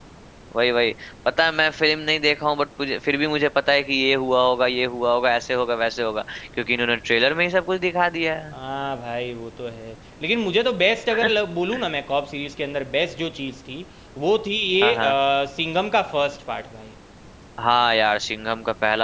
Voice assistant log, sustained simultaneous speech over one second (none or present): none